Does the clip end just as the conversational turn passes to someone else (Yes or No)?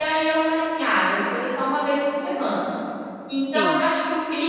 No